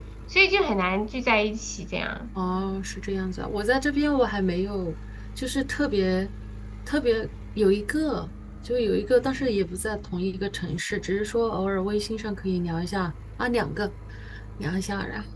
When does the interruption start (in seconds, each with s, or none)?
none